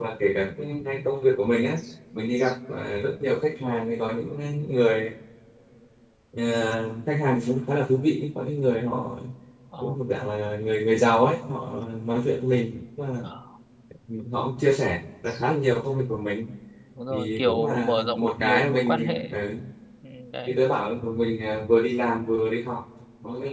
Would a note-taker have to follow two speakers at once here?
Yes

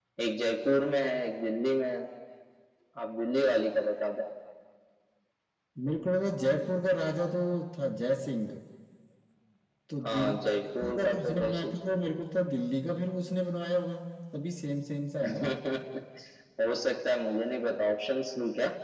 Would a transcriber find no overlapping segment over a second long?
No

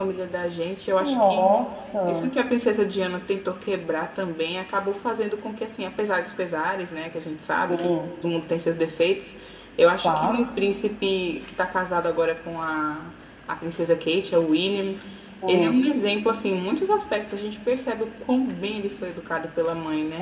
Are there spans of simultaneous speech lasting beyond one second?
No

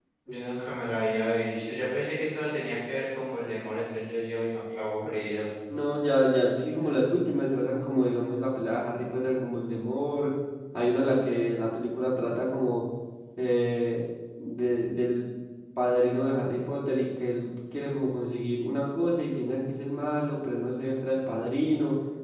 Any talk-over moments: No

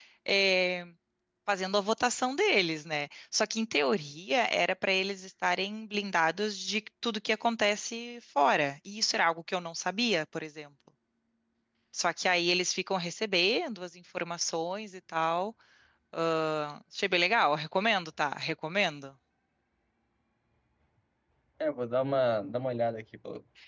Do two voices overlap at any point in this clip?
No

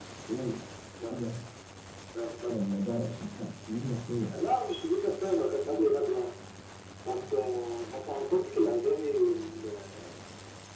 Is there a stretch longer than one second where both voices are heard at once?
No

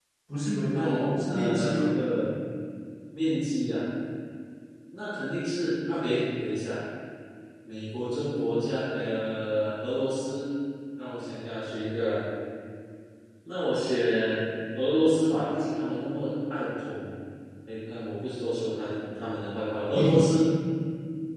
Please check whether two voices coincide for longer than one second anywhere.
Yes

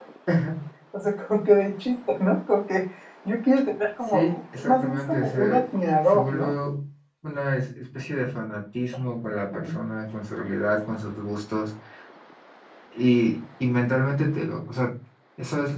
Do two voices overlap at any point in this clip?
Yes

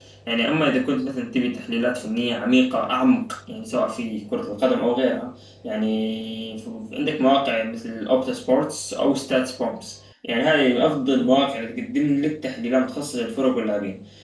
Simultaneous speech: No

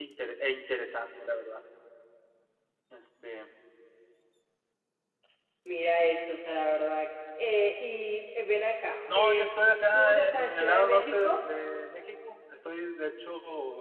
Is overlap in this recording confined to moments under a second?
No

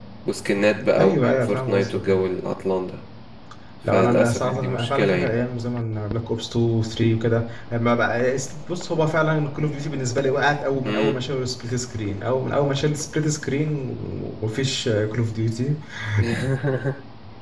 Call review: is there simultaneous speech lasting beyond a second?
Yes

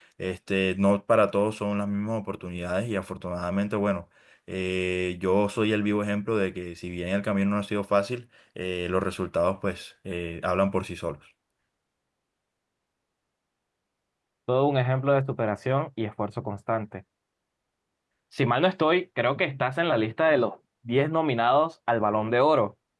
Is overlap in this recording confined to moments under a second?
Yes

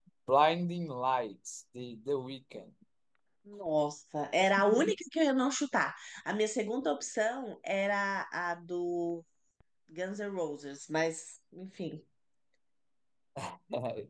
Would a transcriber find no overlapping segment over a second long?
Yes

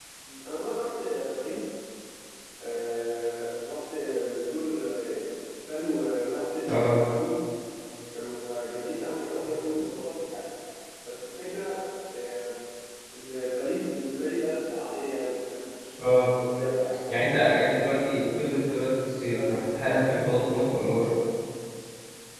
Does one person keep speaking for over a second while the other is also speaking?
No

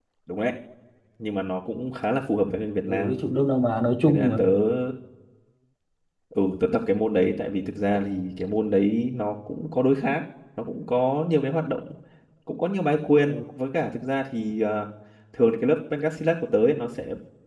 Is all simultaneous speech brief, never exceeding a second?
Yes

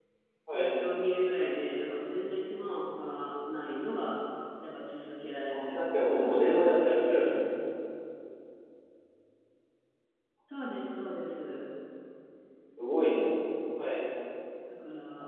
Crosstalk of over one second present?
Yes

